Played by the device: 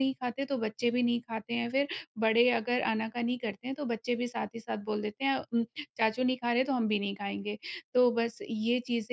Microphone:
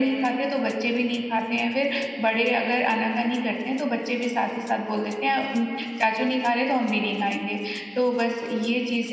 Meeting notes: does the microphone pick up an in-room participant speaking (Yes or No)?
No